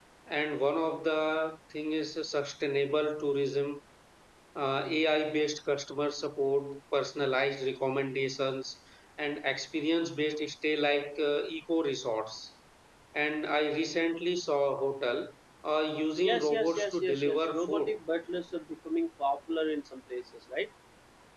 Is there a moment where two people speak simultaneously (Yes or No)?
Yes